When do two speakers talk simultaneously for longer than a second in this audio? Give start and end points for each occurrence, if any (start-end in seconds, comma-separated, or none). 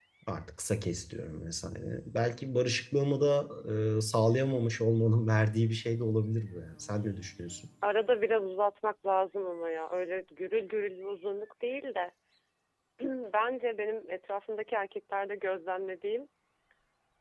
none